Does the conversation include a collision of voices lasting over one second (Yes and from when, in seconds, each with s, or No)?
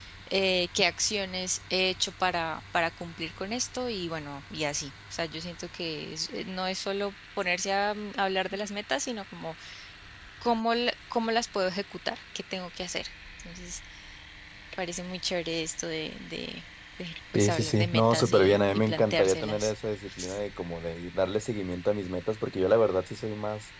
Yes, from 17.4 s